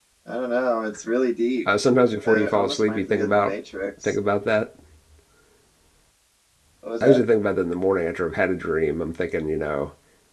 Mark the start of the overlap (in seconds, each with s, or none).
2.3 s